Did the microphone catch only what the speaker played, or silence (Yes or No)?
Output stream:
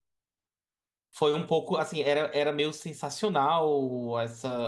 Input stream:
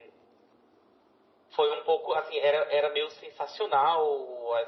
Yes